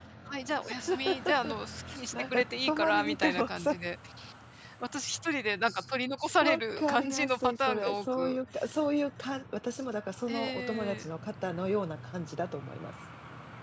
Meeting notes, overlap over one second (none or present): present